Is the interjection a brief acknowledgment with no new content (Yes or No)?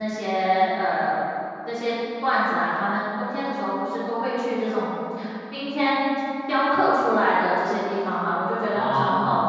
Yes